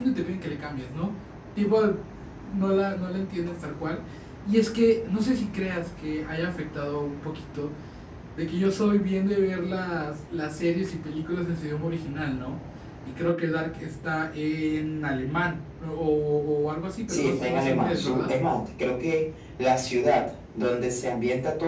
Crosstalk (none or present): present